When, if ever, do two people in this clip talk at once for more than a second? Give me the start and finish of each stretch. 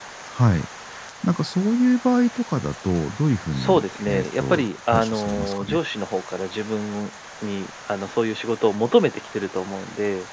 3.5-5.8

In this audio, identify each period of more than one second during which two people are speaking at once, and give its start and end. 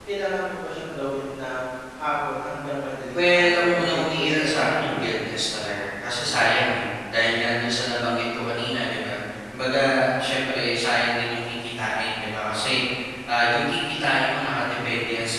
3.1-5.1

